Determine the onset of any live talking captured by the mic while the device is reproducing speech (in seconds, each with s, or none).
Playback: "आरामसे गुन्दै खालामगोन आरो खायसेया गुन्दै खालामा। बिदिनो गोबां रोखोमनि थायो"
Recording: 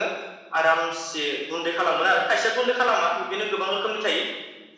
none